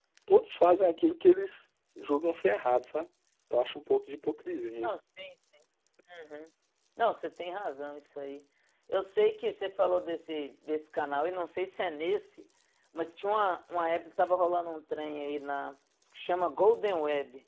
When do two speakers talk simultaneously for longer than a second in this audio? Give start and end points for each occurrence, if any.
none

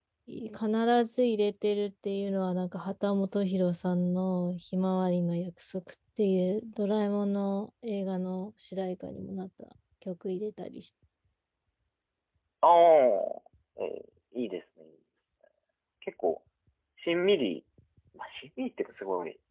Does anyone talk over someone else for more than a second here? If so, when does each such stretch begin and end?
none

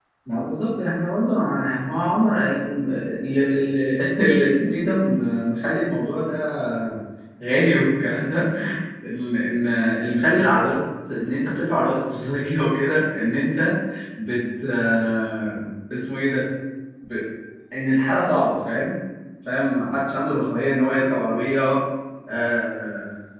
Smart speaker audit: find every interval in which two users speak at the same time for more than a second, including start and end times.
none

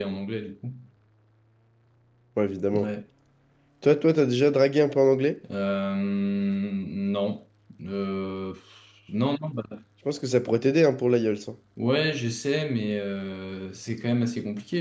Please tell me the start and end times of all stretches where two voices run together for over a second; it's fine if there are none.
none

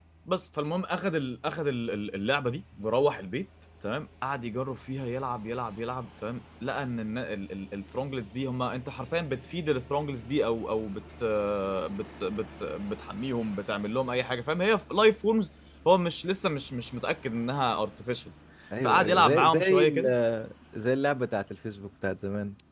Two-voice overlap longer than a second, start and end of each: 18.8-20.1

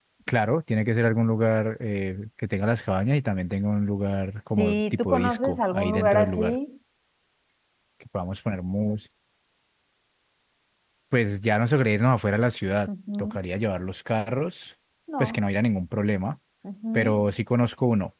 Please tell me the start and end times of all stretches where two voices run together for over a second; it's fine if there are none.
4.6-6.6

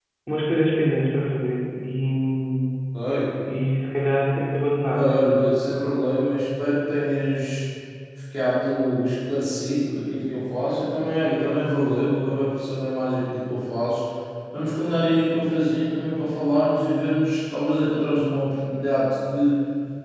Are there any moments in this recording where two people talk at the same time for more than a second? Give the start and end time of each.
none

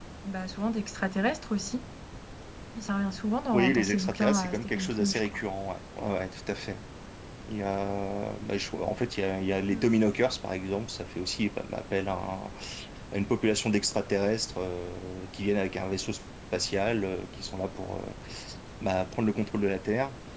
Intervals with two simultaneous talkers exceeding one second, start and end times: 3.5-5.3

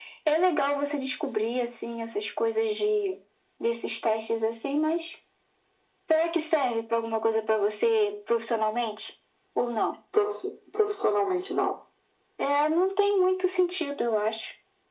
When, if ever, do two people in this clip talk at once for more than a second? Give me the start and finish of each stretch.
none

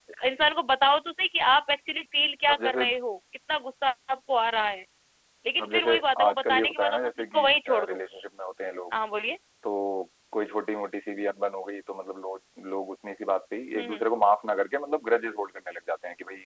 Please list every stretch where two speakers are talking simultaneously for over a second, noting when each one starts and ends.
5.6-7.5

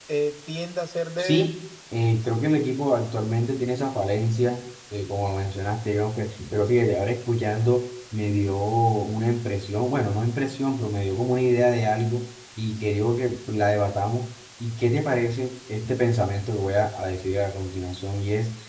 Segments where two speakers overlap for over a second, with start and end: none

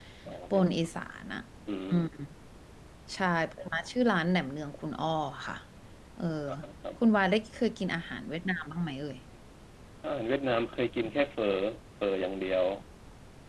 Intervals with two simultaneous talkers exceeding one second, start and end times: none

